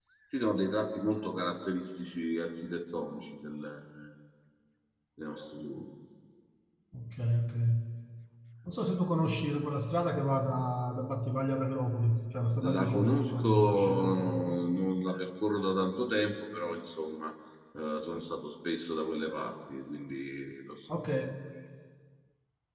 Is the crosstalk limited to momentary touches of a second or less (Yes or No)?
No